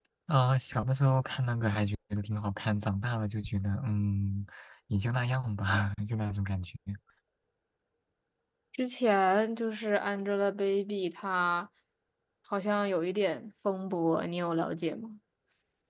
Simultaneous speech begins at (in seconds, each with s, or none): none